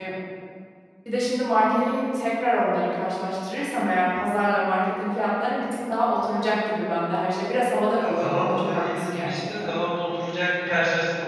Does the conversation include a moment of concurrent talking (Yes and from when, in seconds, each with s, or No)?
Yes, from 8.0 s